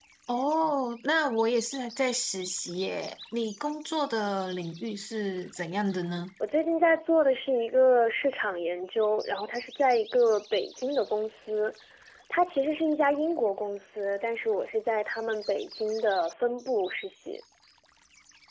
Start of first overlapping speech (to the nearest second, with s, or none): none